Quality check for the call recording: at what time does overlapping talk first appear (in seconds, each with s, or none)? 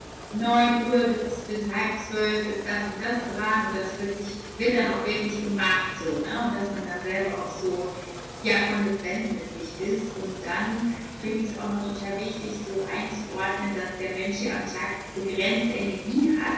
none